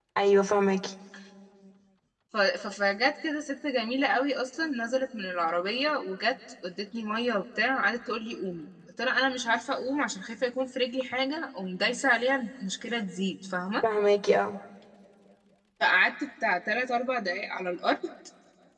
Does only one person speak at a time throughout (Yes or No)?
Yes